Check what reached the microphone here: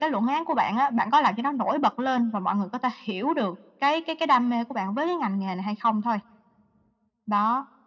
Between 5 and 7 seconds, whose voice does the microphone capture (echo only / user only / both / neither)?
echo only